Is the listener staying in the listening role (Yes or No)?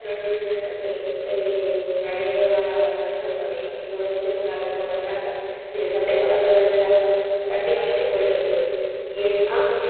Yes